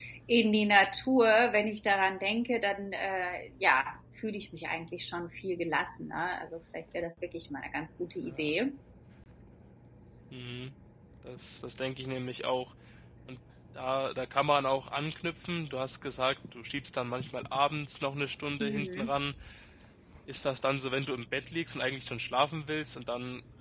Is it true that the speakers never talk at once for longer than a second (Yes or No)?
Yes